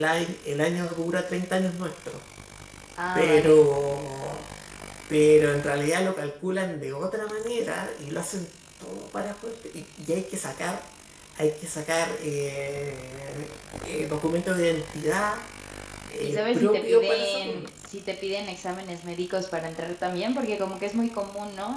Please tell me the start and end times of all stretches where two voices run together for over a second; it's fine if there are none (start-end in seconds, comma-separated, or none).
16.2-17.6